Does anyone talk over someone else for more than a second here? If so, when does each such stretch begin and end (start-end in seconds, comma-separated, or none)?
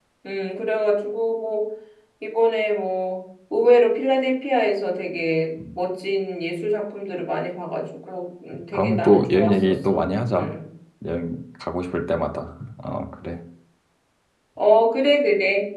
8.7-10.5